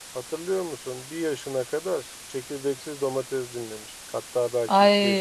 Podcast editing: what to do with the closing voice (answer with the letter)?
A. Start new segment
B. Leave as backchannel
A